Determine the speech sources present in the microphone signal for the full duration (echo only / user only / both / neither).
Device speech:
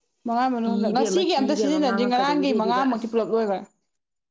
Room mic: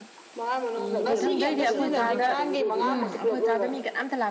both